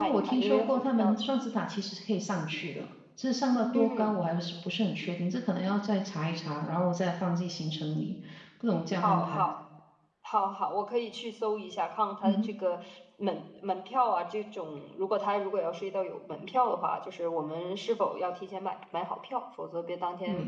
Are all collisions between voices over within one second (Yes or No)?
No